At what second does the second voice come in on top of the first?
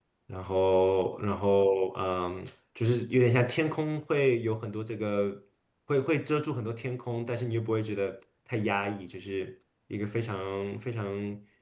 none

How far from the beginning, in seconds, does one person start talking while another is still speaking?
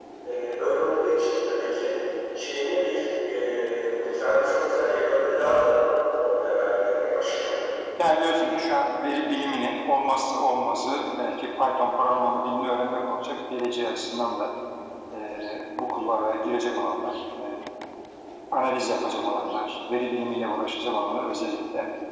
none

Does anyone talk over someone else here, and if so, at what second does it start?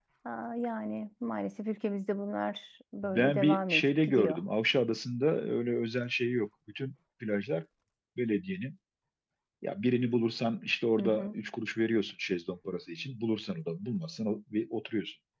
3 s

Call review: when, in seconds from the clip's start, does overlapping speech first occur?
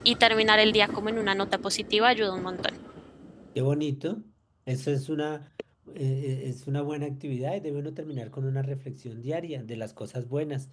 none

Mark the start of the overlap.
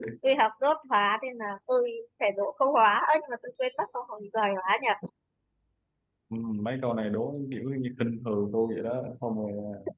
none

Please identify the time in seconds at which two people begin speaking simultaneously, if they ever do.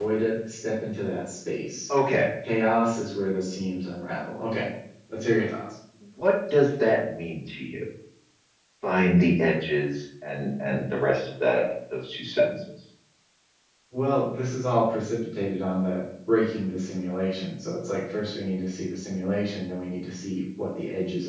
none

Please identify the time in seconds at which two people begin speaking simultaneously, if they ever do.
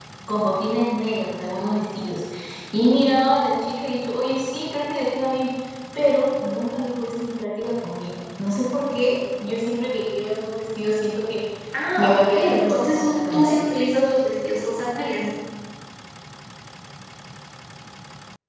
12 s

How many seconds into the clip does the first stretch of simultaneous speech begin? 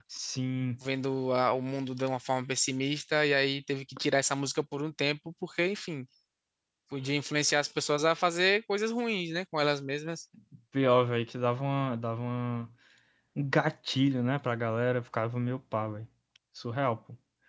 none

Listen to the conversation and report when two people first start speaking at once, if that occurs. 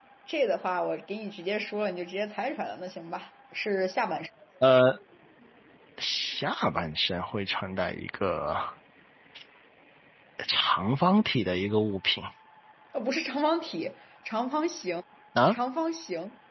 none

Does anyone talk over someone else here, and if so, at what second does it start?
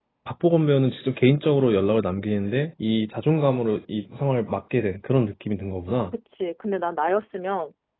none

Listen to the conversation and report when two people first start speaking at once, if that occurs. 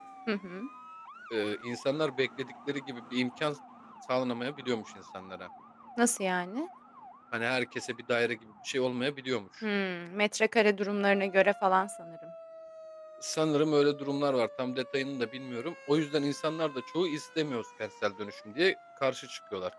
none

